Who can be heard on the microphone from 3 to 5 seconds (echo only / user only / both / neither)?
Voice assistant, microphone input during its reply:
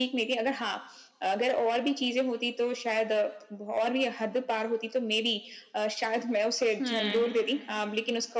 echo only